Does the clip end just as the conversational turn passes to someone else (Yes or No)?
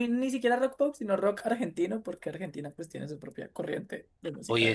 Yes